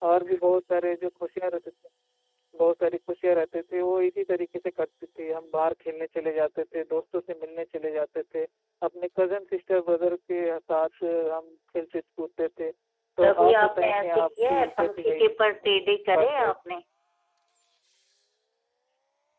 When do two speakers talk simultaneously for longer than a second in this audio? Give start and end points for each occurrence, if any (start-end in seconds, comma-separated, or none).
13.2-15.3